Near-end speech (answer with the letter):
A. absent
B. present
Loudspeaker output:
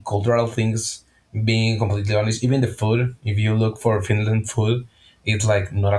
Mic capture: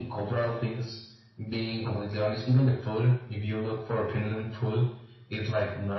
A